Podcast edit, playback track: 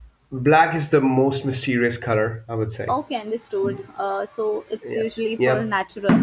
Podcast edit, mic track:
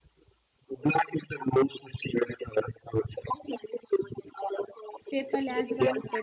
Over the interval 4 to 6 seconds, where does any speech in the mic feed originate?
both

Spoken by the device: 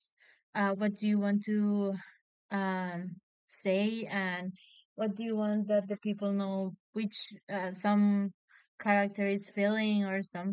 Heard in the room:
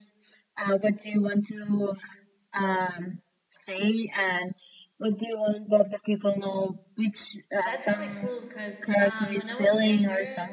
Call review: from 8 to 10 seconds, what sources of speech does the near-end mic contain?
both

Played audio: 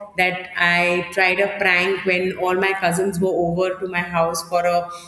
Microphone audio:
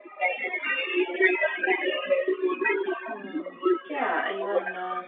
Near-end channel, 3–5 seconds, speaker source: both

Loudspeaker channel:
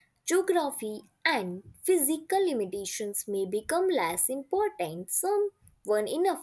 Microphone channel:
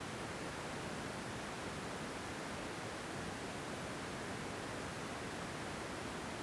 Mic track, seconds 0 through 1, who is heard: neither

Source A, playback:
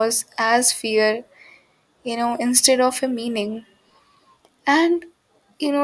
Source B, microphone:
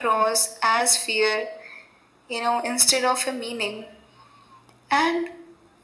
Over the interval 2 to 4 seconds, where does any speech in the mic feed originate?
echo only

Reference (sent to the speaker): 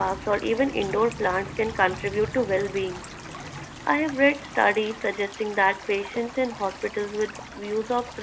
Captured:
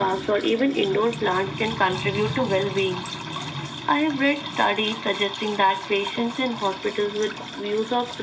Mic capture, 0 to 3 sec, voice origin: echo only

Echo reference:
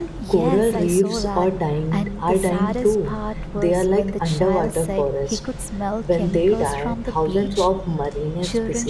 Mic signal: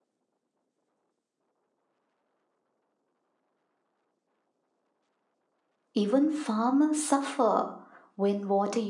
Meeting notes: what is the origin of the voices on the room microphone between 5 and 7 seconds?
user only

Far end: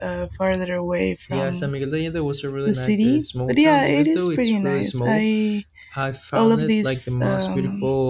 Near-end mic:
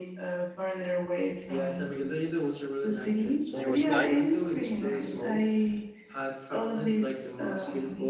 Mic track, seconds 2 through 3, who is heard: echo only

